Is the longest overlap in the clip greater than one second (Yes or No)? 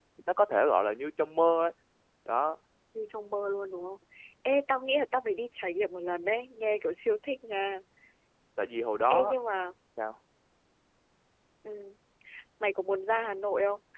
No